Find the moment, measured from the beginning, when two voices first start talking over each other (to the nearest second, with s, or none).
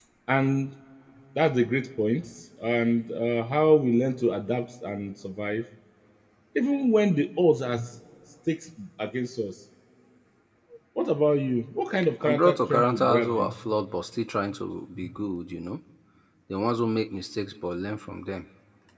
12 s